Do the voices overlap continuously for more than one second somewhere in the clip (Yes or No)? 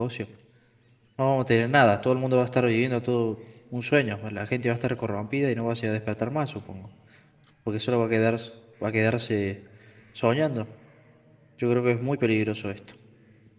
No